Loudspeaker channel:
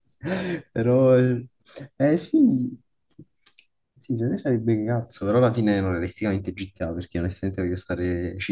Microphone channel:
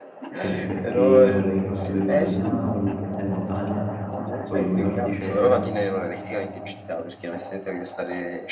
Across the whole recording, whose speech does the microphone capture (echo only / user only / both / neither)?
both